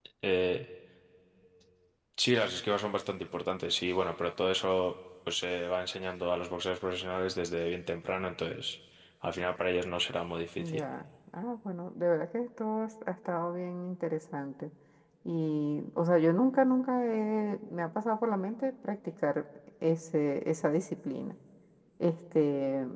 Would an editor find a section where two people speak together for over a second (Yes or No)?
No